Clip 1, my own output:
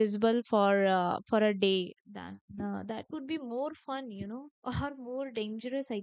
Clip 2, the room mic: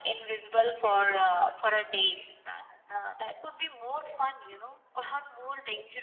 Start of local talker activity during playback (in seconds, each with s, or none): none